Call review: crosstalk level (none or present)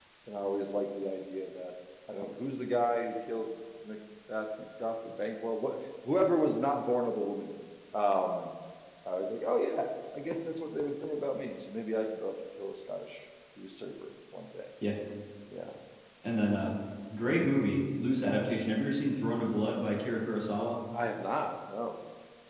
none